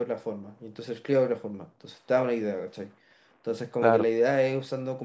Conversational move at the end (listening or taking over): listening